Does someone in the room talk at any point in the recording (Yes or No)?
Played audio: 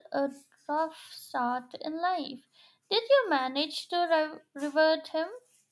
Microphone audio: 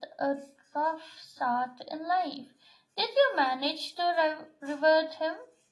No